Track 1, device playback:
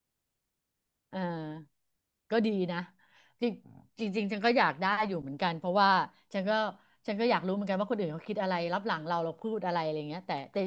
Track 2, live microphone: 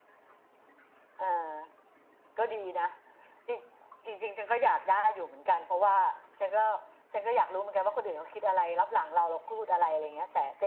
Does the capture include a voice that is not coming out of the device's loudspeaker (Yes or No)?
No